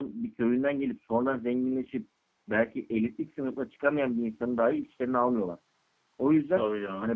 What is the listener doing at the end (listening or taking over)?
listening